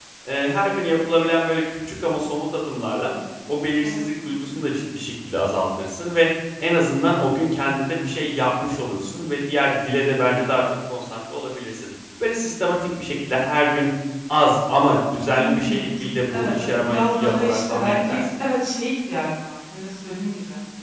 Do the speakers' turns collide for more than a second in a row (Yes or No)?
Yes